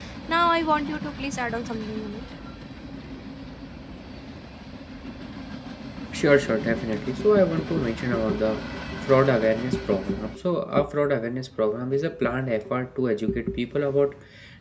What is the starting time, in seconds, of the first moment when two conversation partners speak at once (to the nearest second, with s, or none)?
none